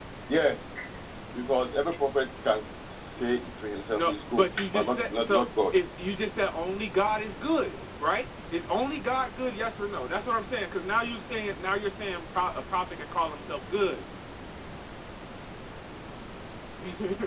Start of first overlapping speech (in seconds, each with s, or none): 3.9 s